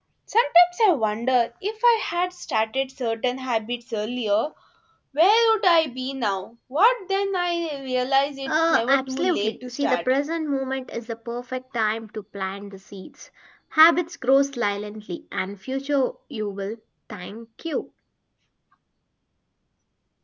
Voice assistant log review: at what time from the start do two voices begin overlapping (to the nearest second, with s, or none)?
8 s